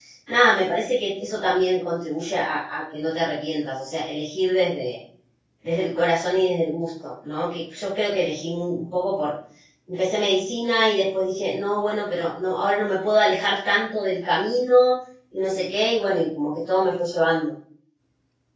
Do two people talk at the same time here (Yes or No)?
No